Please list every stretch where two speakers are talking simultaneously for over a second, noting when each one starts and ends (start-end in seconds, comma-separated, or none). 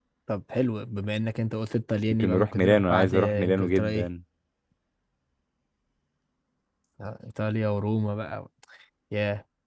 2.1-4.1